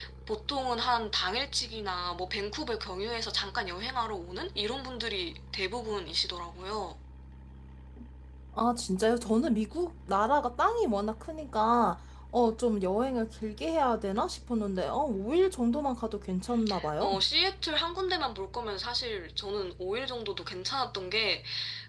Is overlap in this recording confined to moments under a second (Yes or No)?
Yes